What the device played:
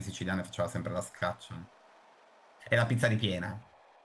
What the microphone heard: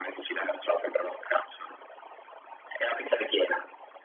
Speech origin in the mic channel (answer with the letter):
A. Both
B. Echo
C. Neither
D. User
B